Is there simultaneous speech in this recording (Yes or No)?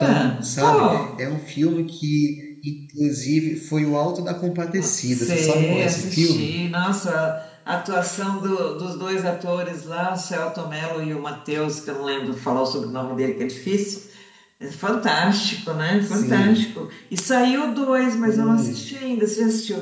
Yes